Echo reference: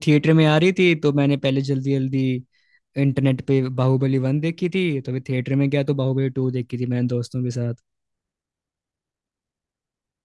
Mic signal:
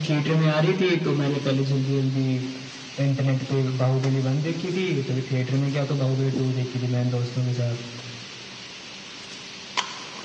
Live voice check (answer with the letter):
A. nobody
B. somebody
A